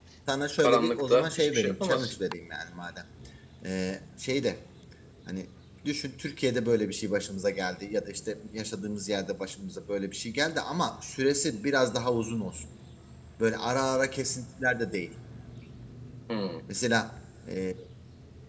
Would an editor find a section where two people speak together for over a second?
Yes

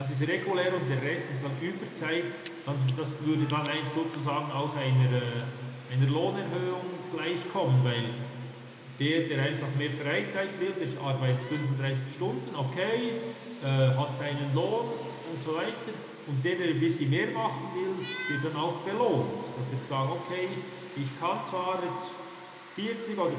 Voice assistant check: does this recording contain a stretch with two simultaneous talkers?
No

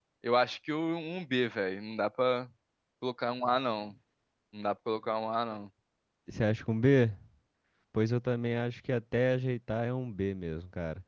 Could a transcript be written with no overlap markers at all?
Yes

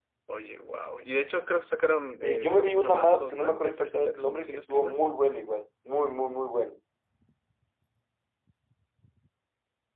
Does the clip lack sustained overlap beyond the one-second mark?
No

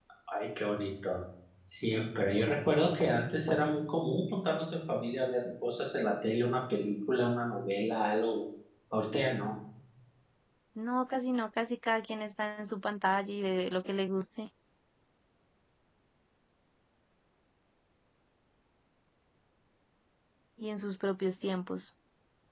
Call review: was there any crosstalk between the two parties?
No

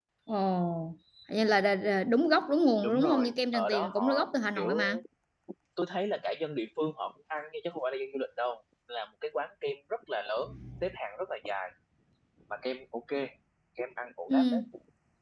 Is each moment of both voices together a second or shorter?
No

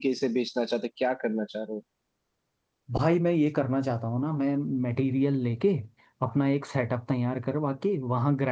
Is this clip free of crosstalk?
Yes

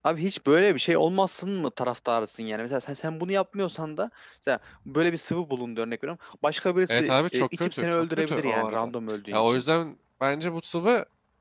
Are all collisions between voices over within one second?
No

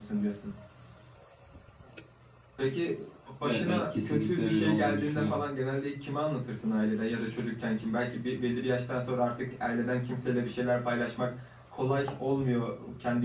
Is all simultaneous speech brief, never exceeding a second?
No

